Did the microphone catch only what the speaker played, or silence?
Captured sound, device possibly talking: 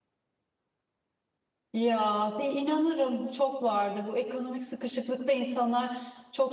No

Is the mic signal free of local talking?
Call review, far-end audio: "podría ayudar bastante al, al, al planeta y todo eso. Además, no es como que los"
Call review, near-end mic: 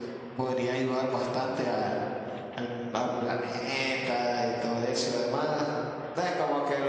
Yes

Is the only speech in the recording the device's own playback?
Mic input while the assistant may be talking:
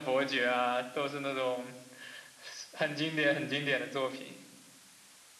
Yes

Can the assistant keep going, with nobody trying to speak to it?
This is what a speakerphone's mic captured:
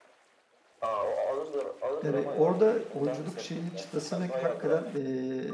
No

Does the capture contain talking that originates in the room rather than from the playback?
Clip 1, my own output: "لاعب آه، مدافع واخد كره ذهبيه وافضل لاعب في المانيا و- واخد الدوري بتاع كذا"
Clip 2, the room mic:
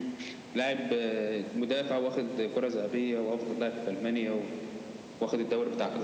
No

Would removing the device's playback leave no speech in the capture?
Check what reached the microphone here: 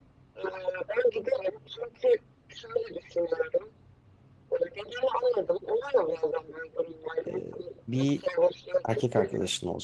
No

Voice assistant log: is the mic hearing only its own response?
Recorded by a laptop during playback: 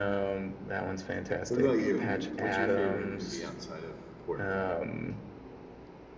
No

